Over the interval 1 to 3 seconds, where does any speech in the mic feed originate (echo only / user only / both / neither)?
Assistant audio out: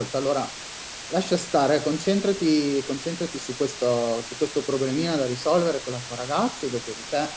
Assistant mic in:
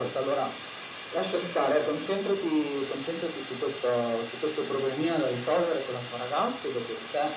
echo only